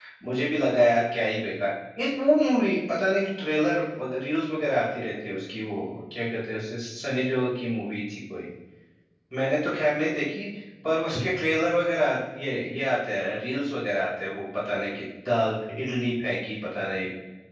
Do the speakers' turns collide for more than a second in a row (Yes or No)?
No